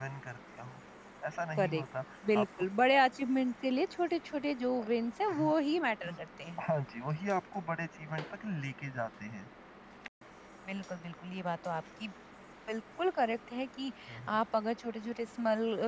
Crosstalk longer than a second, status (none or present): none